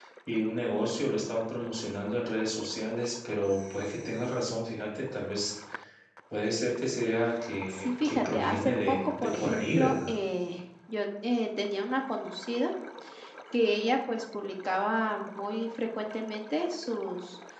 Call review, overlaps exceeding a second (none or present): present